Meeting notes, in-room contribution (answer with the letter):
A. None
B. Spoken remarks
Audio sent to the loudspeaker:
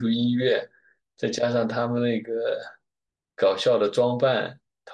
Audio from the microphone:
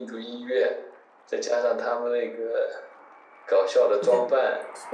B